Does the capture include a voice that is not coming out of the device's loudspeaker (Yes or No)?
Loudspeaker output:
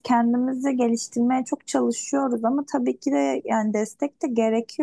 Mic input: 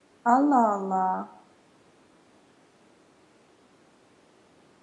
Yes